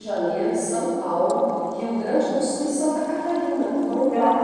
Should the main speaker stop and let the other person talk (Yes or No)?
Yes